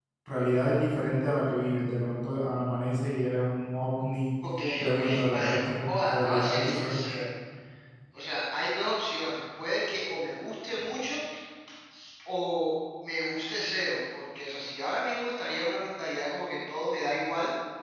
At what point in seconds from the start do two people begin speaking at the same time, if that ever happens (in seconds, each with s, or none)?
4.8 s